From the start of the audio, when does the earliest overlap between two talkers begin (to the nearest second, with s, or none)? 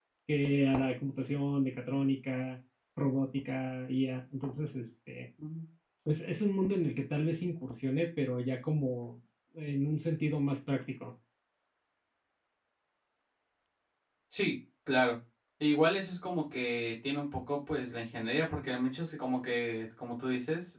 none